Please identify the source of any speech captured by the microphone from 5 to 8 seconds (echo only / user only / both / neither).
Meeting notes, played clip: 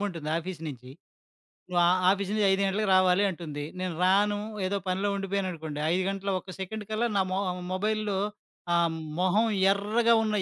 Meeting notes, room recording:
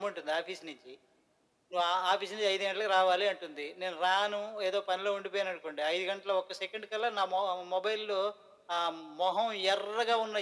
echo only